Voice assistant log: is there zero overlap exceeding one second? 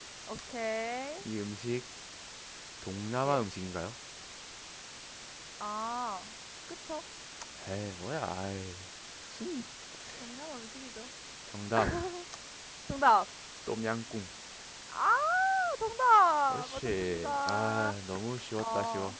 No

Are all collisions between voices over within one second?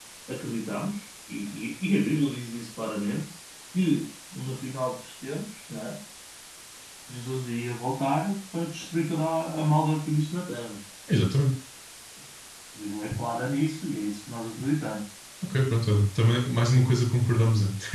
Yes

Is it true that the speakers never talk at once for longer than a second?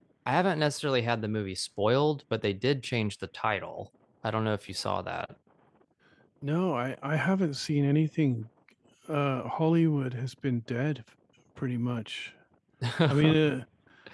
Yes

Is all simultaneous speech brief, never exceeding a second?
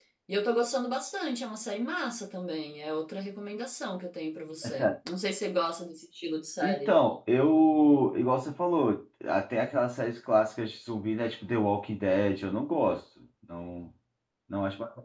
Yes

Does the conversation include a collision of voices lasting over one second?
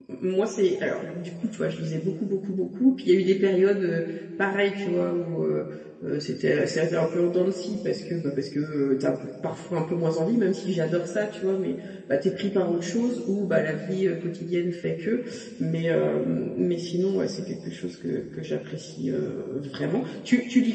No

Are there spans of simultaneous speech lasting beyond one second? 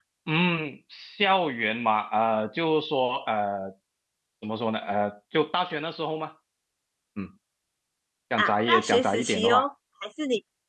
Yes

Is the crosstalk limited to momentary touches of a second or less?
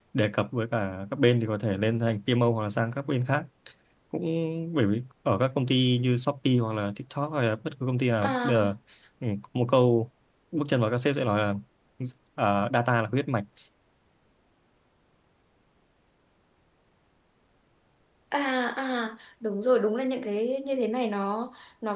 Yes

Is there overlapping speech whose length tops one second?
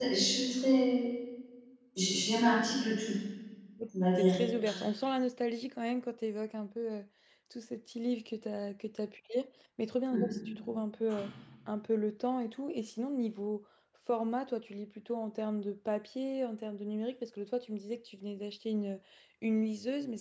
No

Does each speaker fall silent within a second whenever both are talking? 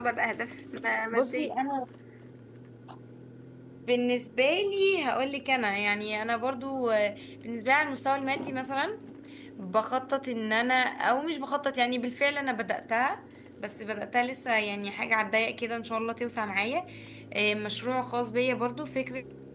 Yes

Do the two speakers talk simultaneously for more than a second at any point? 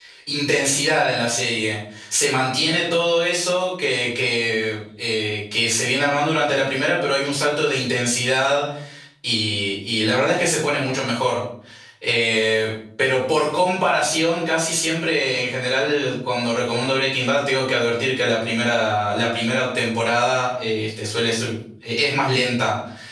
No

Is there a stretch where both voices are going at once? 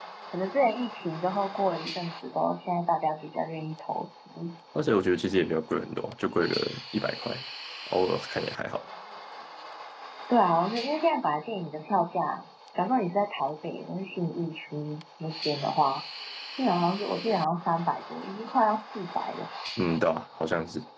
No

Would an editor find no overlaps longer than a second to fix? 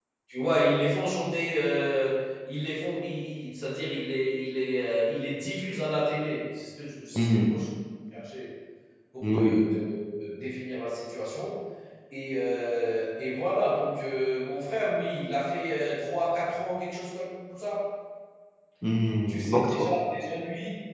Yes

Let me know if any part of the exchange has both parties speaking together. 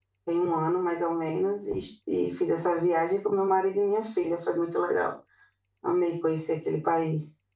No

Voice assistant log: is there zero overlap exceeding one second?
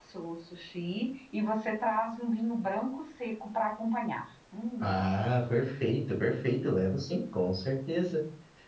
Yes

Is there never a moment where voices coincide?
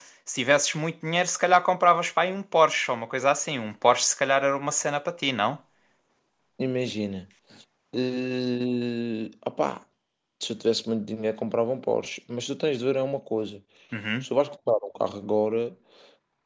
Yes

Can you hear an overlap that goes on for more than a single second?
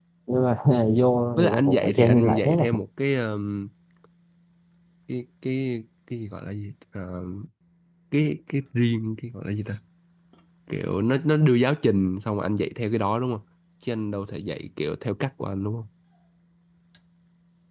Yes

